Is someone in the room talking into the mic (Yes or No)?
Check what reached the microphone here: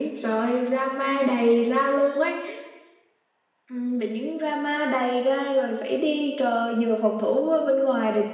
No